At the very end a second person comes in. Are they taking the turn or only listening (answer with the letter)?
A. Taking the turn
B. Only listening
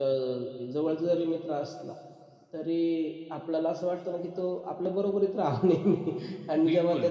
B